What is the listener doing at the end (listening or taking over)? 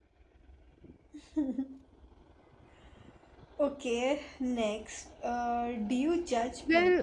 taking over